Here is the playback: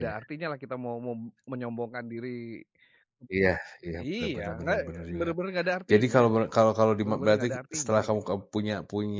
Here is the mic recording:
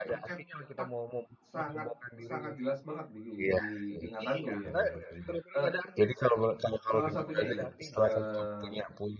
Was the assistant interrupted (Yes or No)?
Yes